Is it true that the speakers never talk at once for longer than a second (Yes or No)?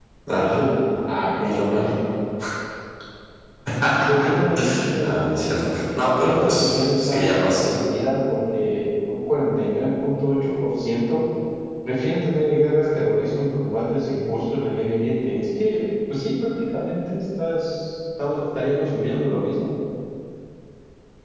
No